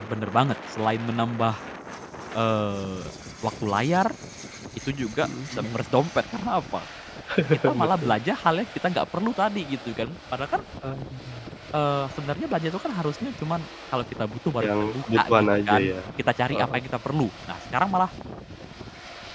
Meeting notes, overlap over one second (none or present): present